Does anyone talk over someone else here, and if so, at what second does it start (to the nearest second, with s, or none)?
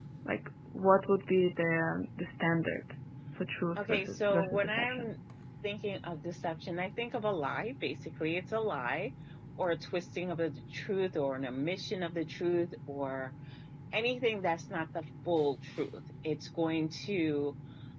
4 s